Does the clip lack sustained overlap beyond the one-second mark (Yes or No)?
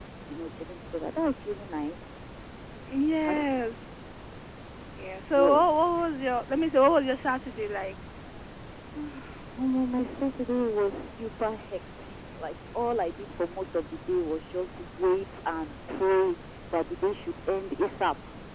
Yes